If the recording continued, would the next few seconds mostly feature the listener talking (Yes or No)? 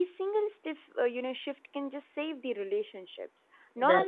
No